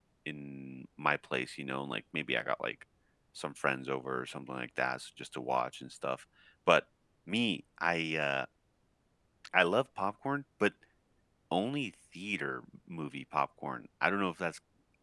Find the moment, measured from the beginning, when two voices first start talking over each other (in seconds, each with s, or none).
none